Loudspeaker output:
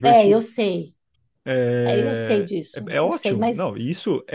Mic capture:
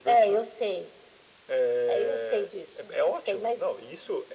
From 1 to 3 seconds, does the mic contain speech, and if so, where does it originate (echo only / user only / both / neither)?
echo only